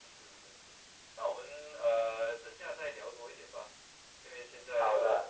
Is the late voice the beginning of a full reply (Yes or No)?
No